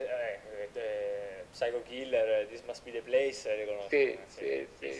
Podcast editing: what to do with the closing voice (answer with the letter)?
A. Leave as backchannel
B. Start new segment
B